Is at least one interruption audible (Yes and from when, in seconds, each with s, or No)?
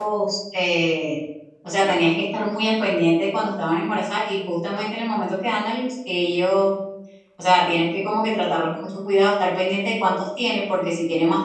No